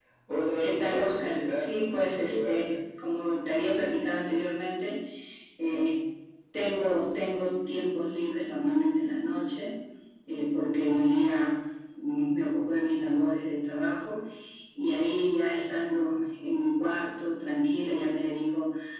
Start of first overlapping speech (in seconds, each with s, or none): 0.6 s